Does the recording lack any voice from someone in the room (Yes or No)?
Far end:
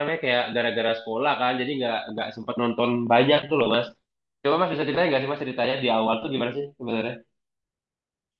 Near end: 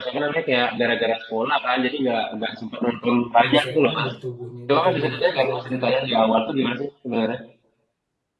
No